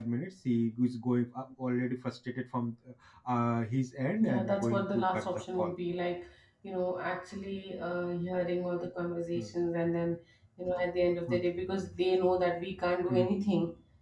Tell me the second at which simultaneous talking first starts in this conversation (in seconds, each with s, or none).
4.2 s